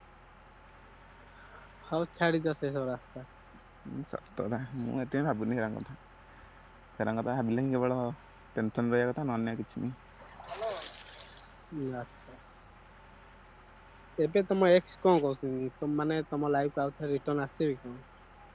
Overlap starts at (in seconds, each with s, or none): none